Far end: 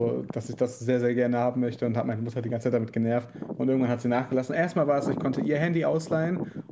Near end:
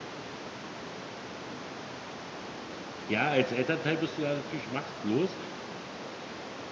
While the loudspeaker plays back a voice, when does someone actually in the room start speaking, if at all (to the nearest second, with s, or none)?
3 s